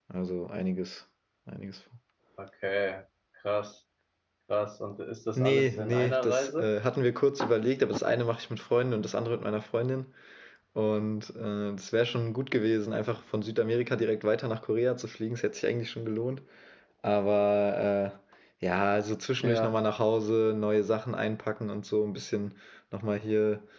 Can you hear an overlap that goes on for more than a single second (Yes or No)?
Yes